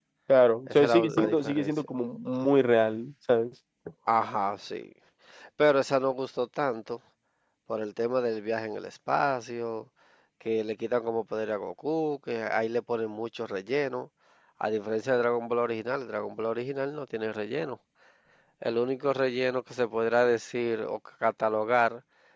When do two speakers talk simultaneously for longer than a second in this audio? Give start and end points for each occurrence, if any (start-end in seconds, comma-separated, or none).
0.7-1.9